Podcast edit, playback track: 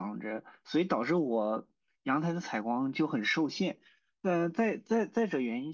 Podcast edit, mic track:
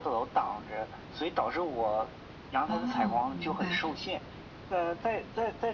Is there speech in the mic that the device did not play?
Yes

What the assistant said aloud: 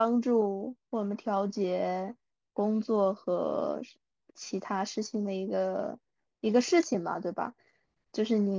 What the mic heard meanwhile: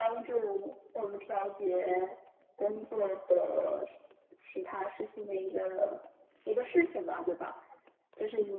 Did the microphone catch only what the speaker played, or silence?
Yes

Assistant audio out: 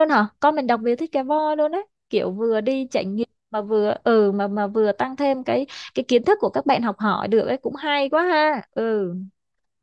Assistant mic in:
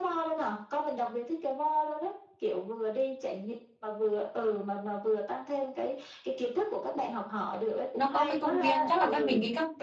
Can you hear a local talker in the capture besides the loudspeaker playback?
Yes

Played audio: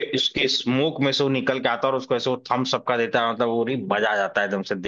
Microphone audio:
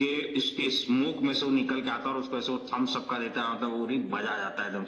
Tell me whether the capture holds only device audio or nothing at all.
Yes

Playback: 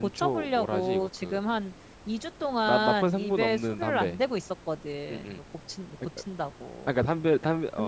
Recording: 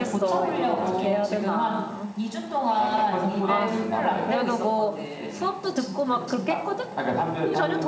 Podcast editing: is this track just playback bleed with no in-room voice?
No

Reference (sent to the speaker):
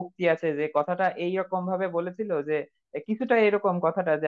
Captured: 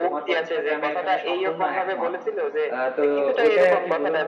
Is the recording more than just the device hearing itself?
Yes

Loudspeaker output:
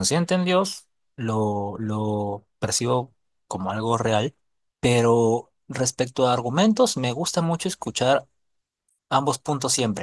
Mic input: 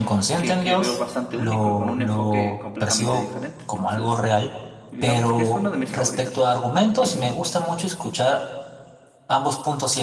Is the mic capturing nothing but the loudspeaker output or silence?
No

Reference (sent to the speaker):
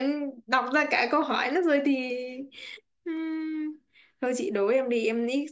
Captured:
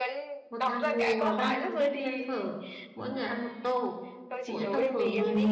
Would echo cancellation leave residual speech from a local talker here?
Yes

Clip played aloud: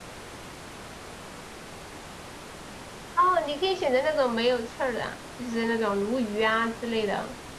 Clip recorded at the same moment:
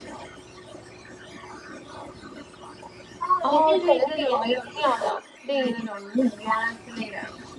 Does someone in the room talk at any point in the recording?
Yes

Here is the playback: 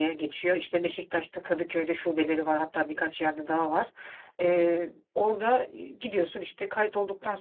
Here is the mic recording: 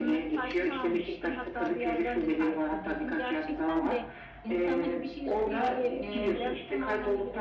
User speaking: Yes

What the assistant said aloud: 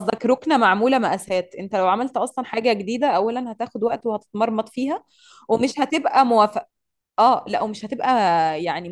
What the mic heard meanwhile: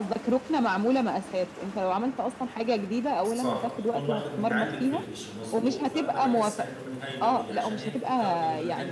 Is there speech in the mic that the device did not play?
Yes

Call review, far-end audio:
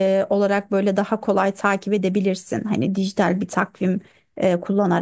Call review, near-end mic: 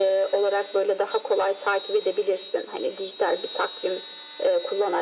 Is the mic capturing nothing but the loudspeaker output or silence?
Yes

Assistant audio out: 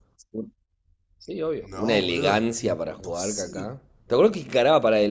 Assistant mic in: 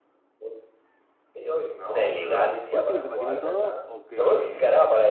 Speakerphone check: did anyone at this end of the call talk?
Yes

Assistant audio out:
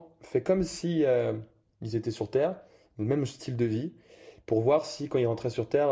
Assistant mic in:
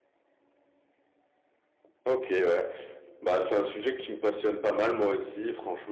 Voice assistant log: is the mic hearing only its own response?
No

